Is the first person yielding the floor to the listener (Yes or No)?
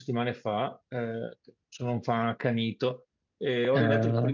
No